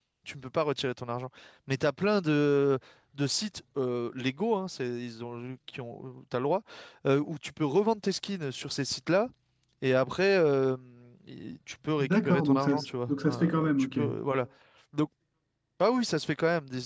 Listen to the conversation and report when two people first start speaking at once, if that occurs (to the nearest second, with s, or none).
12 s